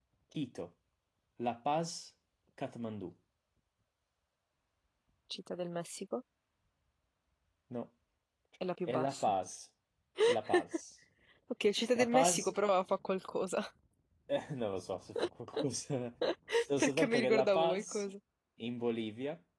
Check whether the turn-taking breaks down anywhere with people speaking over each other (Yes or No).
Yes